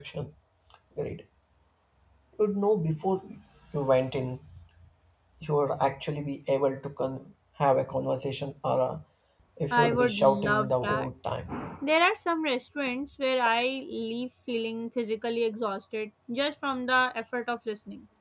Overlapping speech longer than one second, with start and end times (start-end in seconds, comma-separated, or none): 9.7-11.1